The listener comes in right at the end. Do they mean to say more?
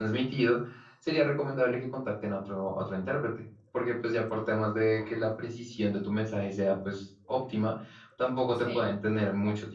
No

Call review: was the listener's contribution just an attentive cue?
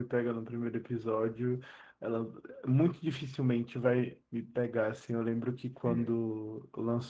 Yes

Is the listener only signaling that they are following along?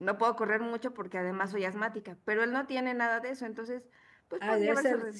No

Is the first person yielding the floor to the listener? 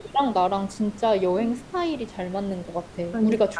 No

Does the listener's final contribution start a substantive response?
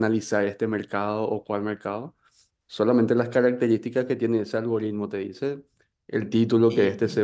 No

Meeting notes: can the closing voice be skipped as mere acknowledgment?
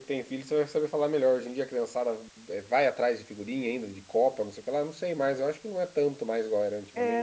No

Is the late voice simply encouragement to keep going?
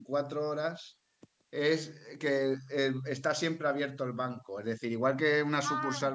Yes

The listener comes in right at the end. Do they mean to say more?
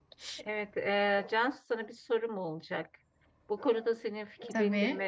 No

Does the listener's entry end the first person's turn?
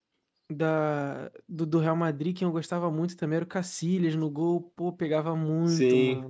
Yes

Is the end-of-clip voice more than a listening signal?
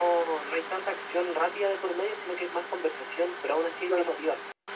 Yes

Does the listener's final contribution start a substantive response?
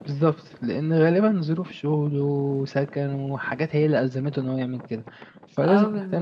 Yes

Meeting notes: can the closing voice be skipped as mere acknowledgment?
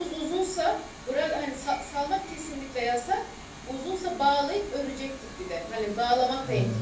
Yes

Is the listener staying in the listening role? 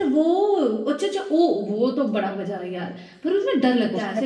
No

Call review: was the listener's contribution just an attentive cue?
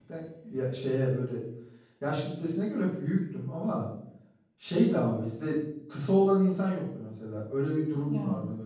Yes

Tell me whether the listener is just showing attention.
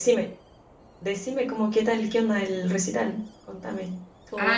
No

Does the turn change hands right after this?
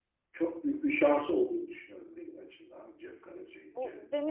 Yes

